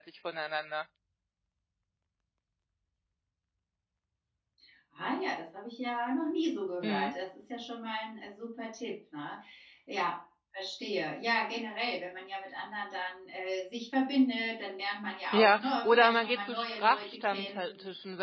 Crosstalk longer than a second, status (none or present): present